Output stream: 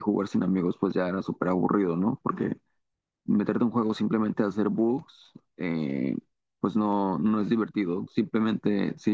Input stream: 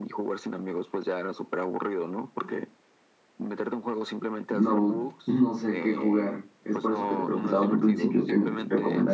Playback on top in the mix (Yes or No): No